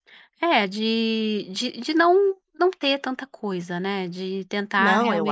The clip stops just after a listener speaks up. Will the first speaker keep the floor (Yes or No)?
No